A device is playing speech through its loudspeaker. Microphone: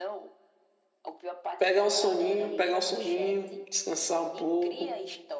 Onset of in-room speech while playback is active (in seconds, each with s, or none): 1.6 s